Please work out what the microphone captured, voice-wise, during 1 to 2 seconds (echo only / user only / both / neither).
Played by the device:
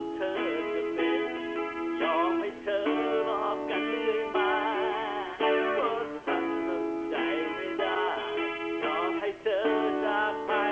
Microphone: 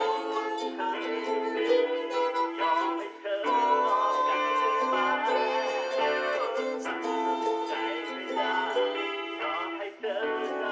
both